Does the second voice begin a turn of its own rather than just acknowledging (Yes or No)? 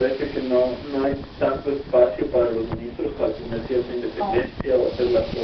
No